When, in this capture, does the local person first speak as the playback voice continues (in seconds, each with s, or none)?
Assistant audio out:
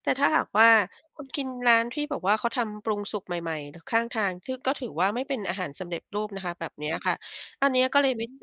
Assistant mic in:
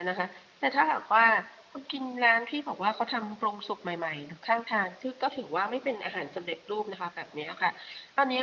none